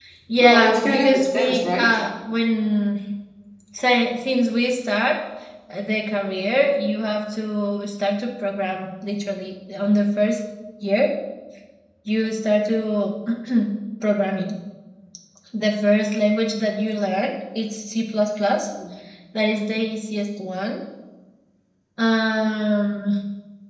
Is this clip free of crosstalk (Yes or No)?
No